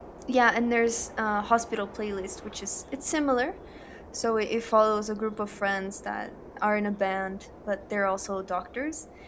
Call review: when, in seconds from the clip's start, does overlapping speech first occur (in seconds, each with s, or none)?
none